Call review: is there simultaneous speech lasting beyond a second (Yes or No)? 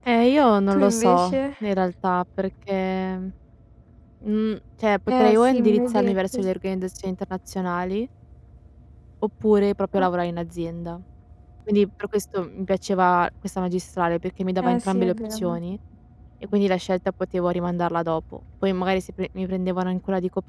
Yes